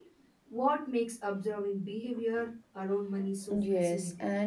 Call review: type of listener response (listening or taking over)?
taking over